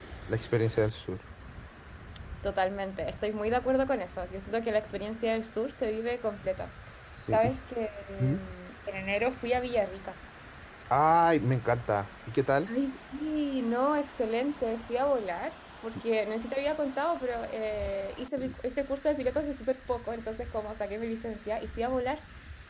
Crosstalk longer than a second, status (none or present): none